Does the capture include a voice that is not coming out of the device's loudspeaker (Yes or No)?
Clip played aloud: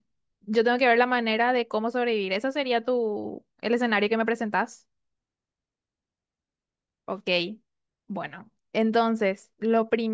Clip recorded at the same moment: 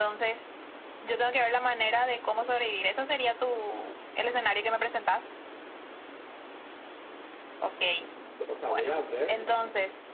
Yes